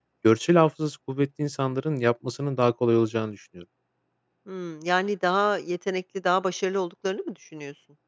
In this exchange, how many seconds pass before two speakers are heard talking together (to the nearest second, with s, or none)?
none